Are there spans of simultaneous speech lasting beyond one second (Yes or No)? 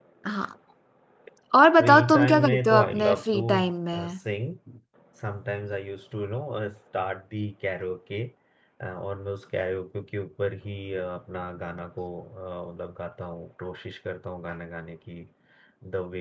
Yes